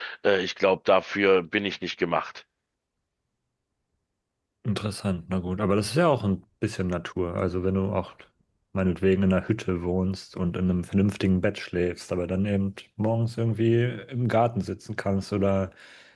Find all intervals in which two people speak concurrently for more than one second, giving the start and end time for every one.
none

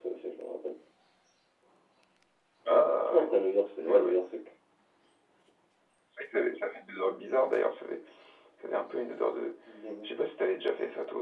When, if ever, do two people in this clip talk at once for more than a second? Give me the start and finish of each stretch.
none

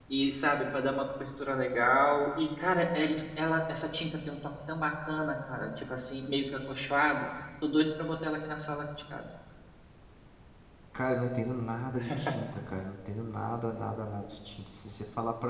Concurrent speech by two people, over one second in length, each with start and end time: none

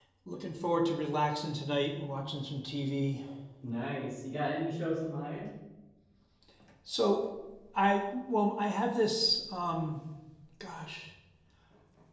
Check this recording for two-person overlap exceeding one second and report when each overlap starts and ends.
none

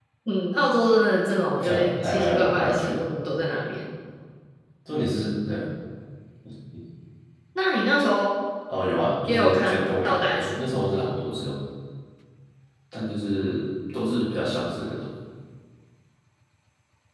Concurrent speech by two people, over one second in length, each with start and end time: 1.6-3.0, 9.3-10.6

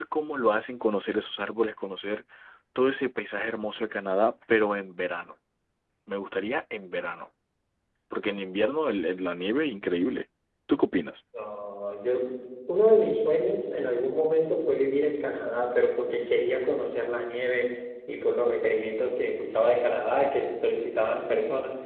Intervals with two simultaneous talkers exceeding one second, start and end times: none

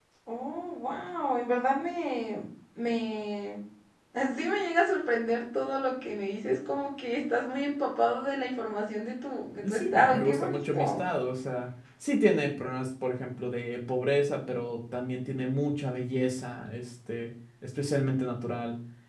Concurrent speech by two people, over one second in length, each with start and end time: 9.7-11.0

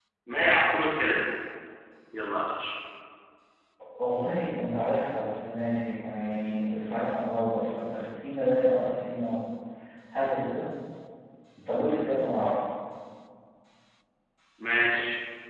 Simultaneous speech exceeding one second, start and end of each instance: none

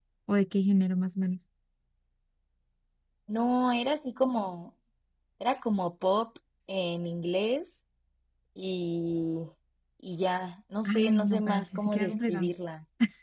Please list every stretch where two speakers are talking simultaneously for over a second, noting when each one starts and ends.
10.8-12.5

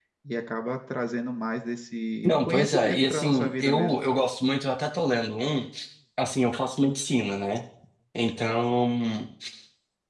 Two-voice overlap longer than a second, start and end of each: 2.3-3.9

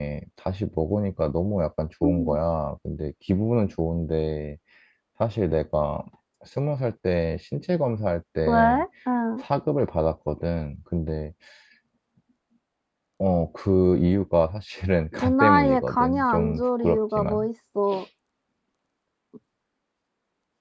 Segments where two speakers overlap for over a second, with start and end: 15.2-17.5

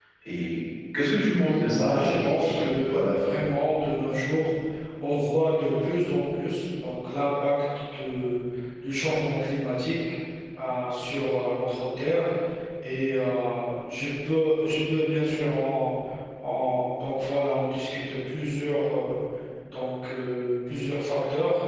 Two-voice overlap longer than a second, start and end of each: 1.7-3.2

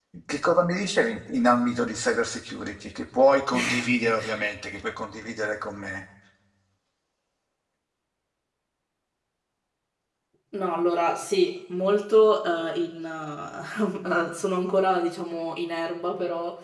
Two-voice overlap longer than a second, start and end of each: none

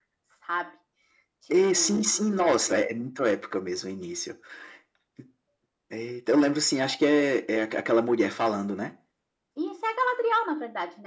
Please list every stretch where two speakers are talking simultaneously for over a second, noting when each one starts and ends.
1.5-2.8

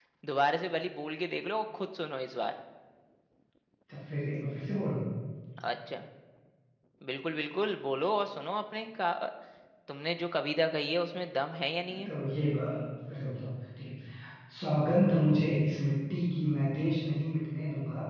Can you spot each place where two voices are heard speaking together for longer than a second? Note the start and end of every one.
none

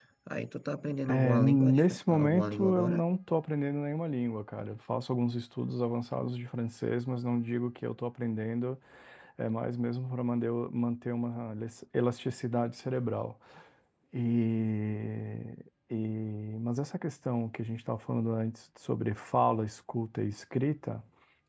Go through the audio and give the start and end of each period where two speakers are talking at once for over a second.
1.1-3.0

